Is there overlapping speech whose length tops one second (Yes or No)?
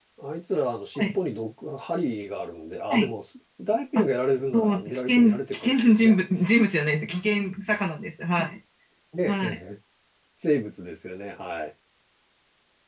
Yes